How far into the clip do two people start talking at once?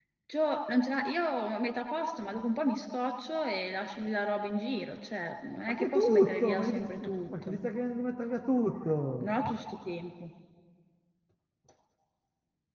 5.7 s

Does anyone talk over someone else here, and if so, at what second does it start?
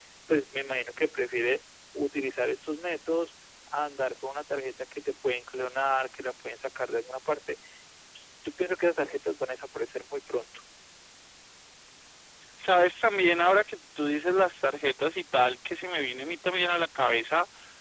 none

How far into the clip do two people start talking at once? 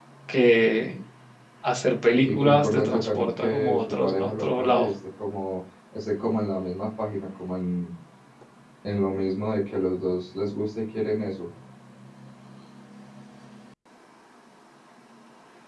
2.2 s

